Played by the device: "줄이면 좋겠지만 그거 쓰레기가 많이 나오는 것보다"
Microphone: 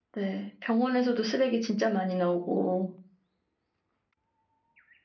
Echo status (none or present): none